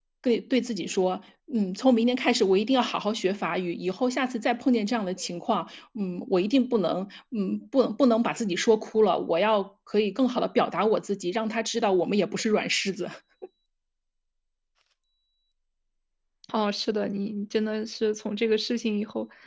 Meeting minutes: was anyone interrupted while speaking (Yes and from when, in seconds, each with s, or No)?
No